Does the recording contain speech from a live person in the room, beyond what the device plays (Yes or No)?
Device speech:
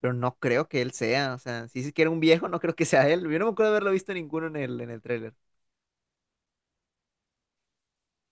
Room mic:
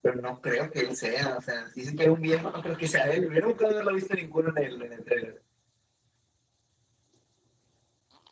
No